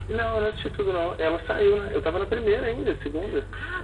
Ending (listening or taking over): taking over